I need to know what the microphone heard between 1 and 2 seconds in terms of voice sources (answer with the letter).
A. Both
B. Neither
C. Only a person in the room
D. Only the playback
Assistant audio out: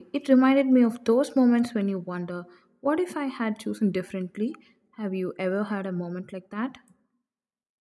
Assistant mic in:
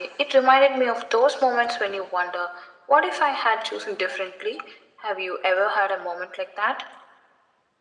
D